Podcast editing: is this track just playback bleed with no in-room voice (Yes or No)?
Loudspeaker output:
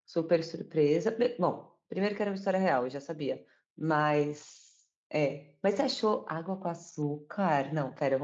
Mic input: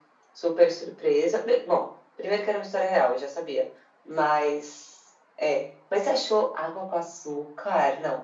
Yes